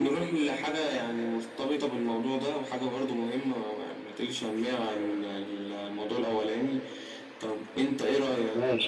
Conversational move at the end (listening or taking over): listening